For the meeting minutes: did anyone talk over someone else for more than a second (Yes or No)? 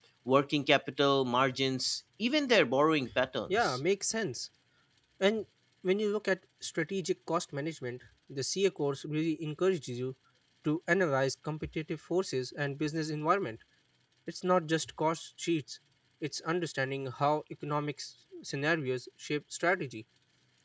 No